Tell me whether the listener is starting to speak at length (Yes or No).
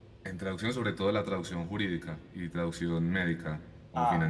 Yes